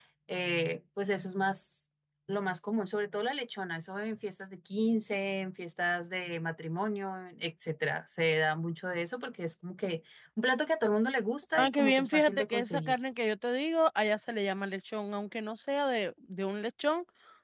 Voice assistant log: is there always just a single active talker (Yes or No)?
No